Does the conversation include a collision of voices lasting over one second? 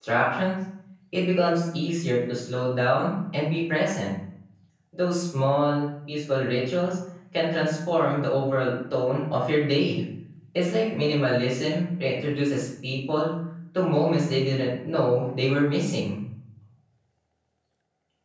No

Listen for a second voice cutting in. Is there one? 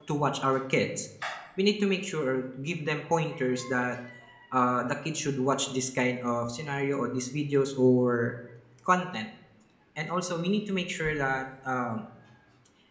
No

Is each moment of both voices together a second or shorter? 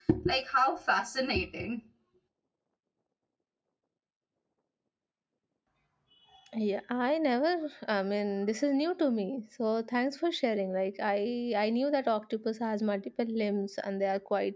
Yes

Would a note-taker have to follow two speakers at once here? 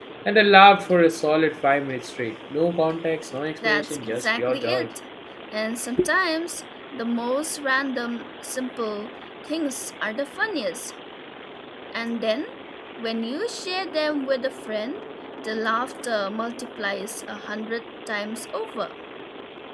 Yes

